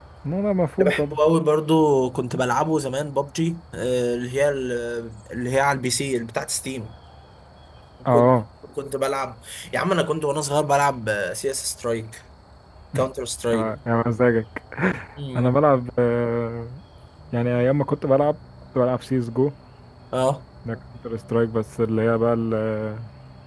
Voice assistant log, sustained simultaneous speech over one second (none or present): none